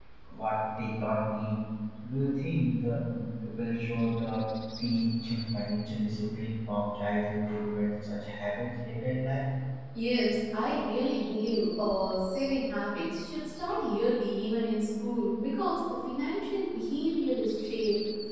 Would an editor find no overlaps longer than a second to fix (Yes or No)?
Yes